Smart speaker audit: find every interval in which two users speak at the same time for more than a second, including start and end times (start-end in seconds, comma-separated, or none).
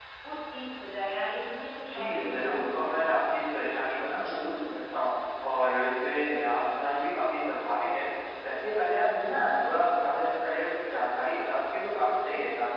1.8-3.2